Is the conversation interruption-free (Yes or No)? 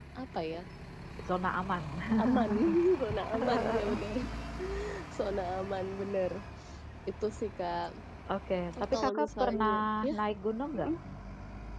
No